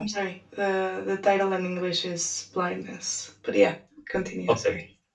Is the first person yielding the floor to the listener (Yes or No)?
Yes